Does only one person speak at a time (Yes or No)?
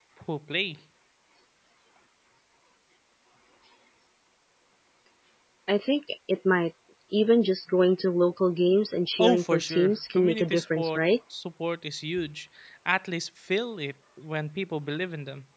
No